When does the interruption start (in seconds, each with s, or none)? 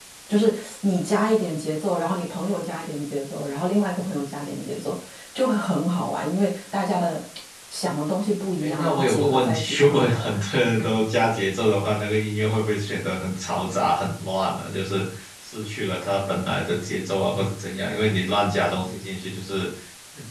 8.6 s